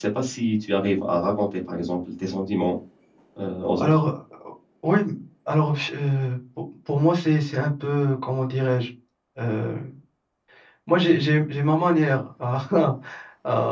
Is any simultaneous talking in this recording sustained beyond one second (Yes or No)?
No